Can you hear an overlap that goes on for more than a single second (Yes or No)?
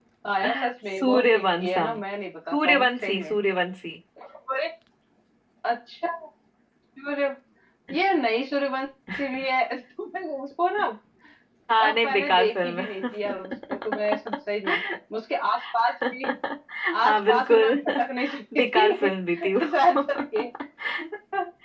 Yes